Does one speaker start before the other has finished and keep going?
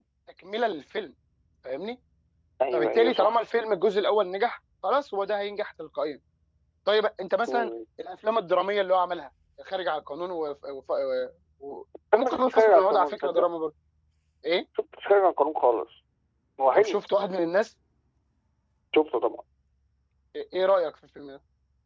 Yes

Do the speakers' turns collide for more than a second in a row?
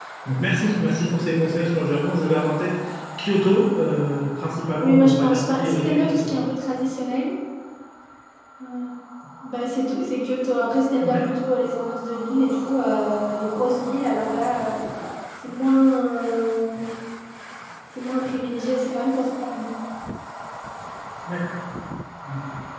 Yes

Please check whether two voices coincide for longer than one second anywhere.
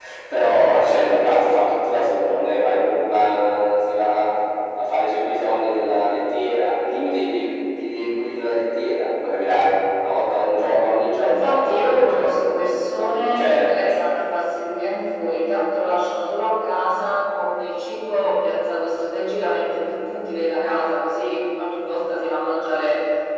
Yes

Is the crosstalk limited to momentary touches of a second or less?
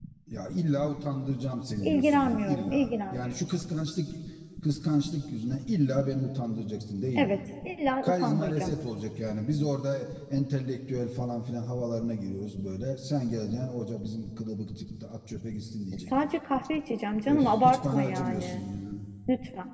No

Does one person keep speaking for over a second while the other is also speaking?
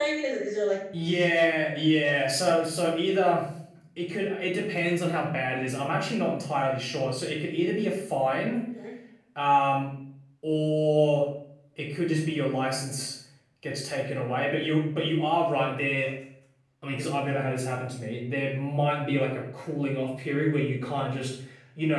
No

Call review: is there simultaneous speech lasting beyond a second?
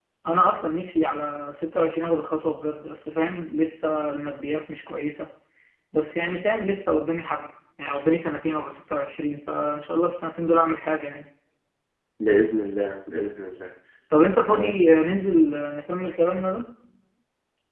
No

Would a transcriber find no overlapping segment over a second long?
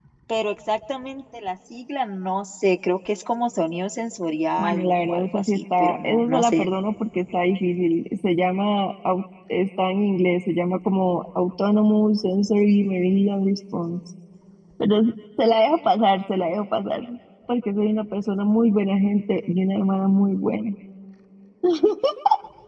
No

